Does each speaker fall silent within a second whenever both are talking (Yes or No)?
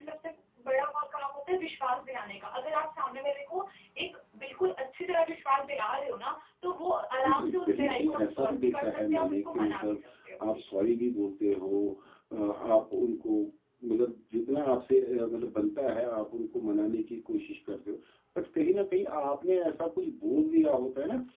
No